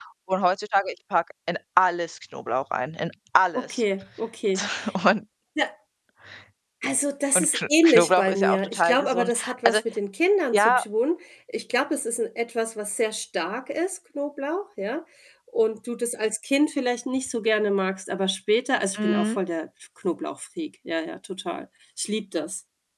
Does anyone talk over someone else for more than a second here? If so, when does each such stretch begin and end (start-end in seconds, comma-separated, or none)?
7.3-9.8